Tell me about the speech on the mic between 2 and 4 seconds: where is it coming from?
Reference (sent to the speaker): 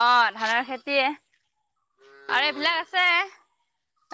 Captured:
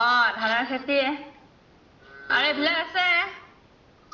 echo only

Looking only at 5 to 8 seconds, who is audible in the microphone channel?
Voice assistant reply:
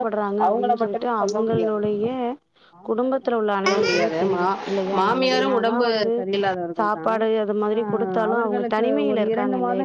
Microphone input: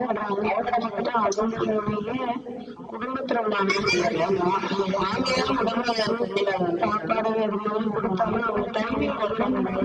echo only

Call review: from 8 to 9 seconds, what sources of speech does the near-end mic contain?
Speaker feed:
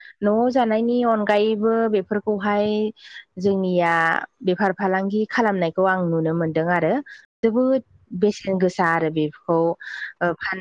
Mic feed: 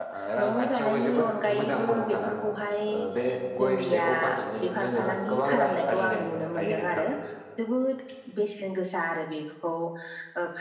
echo only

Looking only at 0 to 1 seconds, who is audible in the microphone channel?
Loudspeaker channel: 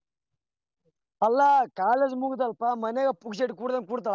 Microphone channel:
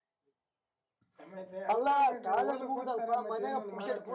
neither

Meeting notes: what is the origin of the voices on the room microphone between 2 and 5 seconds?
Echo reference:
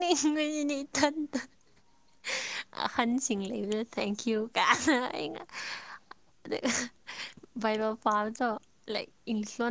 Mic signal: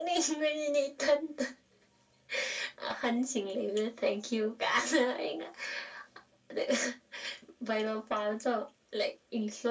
echo only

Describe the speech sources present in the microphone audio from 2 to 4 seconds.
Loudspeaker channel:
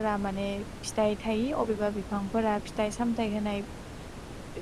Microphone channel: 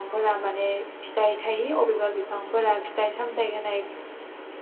echo only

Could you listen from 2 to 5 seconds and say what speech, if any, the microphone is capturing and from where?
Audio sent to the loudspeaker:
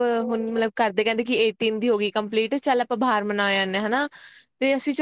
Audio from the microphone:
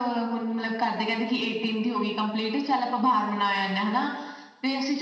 echo only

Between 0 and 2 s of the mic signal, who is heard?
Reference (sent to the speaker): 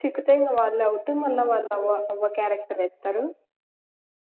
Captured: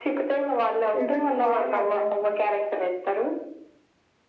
both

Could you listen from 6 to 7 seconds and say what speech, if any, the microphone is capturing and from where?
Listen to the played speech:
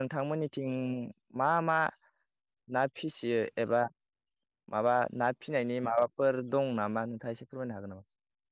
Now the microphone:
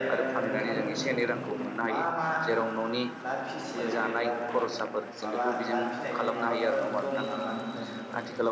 both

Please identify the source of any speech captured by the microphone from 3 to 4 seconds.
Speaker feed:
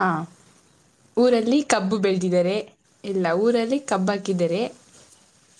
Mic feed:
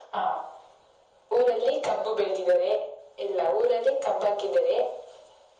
echo only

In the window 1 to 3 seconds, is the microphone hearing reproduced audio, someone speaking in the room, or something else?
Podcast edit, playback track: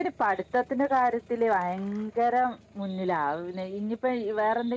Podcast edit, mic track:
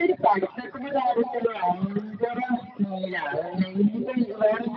echo only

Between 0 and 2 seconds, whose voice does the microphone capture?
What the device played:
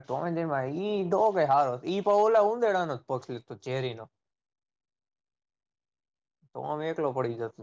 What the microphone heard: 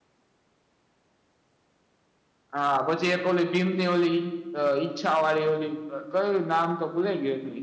neither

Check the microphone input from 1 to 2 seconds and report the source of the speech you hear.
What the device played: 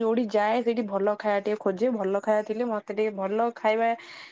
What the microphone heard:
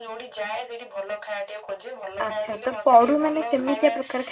echo only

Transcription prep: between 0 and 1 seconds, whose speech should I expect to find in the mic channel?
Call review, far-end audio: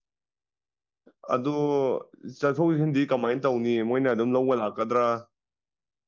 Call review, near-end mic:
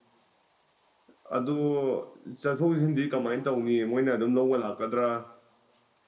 neither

